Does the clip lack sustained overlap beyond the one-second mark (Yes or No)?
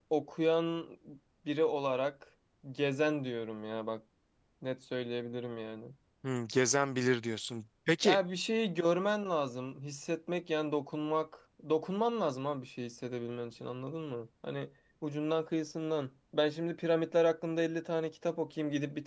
Yes